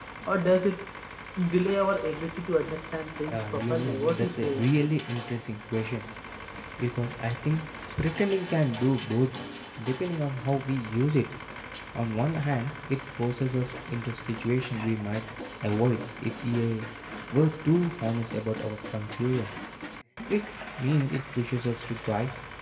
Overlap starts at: 3 s

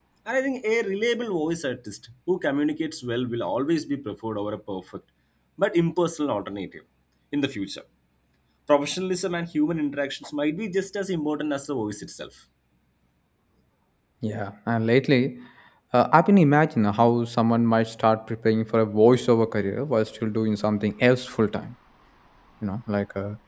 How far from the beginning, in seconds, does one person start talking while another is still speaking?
none

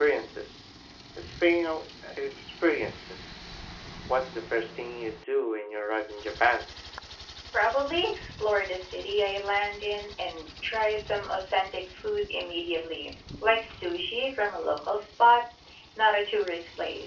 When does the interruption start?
none

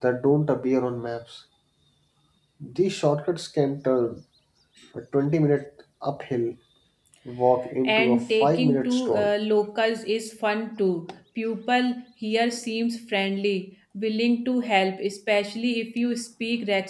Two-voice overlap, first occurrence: 8 s

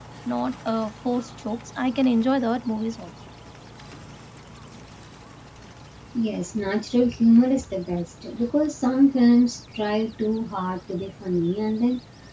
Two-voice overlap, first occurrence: none

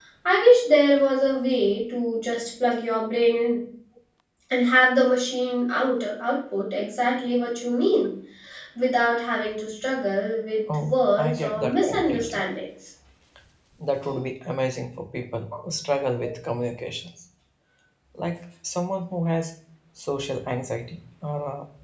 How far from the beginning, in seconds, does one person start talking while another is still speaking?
11 s

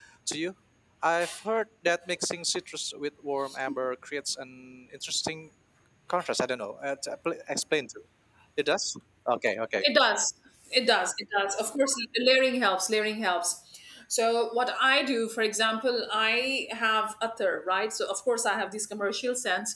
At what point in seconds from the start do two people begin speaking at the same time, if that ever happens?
none

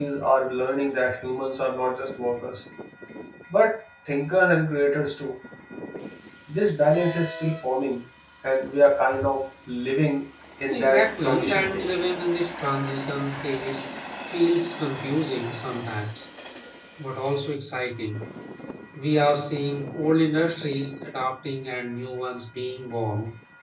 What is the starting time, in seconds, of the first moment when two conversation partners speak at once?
11 s

